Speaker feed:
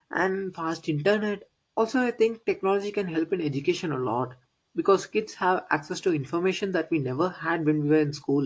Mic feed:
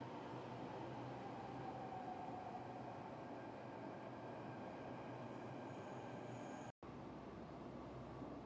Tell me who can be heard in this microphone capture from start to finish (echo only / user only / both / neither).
neither